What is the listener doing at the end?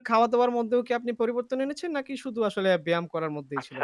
taking over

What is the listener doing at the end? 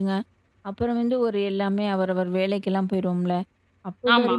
listening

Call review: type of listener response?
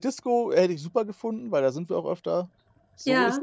taking over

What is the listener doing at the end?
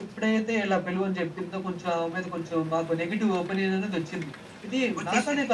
listening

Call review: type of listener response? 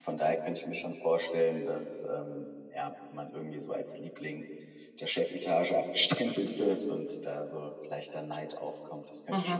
taking over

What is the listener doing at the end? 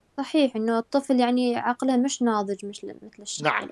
taking over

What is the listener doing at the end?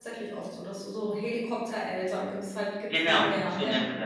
taking over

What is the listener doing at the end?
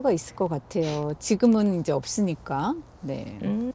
taking over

